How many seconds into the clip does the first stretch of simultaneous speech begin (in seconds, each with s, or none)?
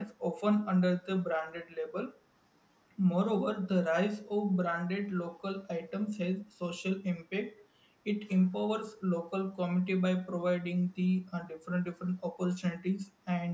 none